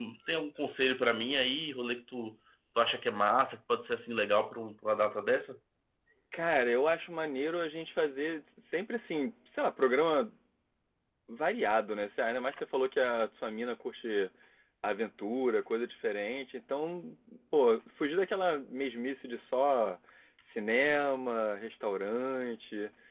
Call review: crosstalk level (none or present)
none